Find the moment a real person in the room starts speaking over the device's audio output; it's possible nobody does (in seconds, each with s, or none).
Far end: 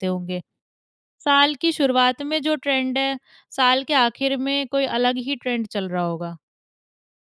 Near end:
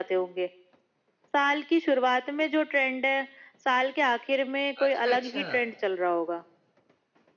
4.8 s